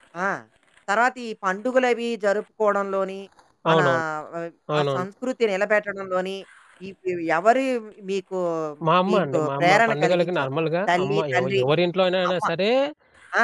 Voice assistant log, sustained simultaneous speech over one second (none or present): present